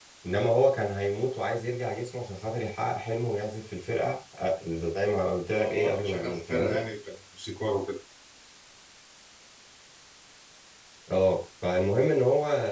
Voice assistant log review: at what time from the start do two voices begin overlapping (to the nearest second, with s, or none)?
5 s